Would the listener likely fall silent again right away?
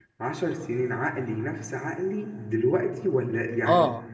No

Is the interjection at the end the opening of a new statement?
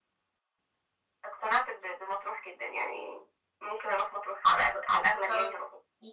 Yes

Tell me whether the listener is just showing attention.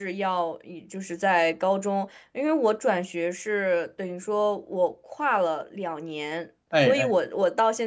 Yes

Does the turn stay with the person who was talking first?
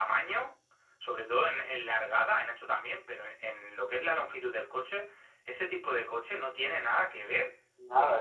No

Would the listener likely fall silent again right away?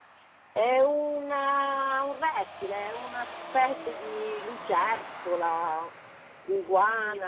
Yes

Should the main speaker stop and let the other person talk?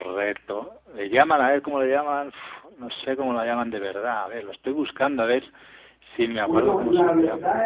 Yes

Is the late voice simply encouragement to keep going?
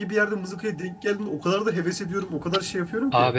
No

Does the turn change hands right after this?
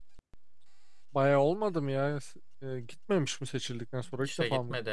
Yes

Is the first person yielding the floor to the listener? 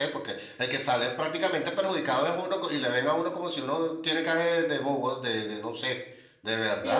Yes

